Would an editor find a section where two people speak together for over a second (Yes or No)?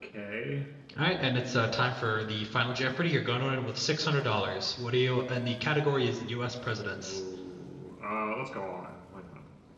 No